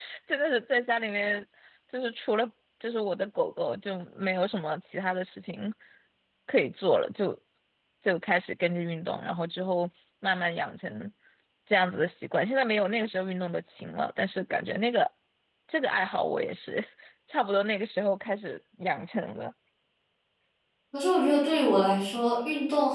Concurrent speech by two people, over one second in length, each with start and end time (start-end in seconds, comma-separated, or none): none